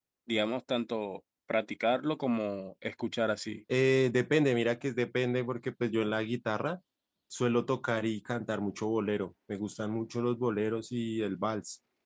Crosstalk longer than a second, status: none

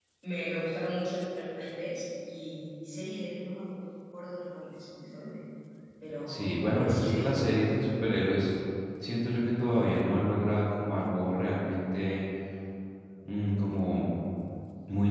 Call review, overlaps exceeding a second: present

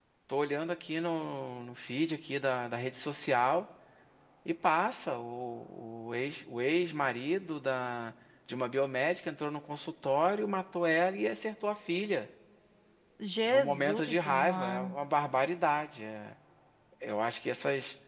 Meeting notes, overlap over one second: present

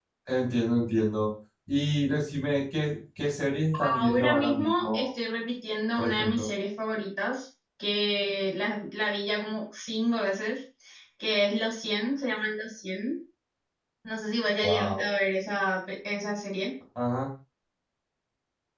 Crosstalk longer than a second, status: present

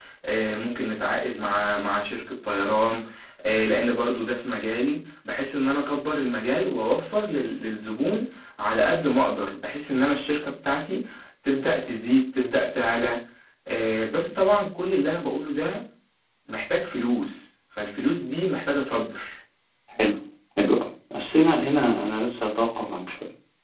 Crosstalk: none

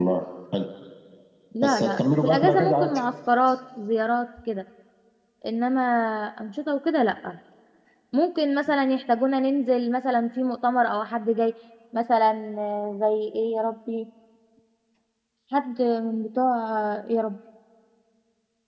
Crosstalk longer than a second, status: present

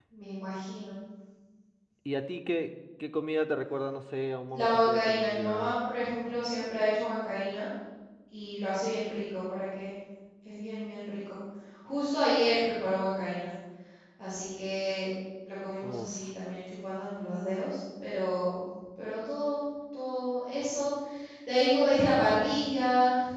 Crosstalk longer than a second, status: present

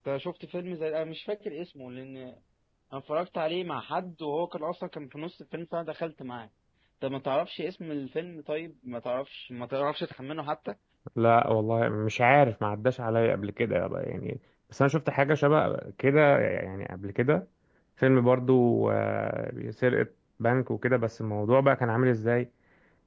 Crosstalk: none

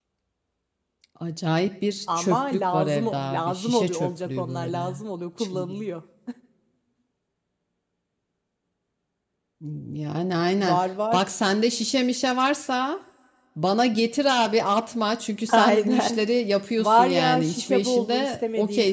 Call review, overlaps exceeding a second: present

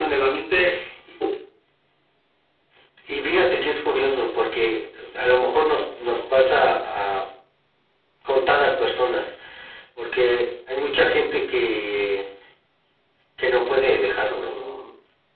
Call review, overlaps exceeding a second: none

